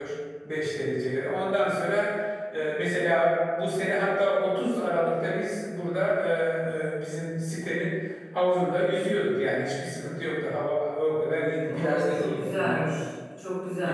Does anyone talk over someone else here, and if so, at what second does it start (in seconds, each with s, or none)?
11.6 s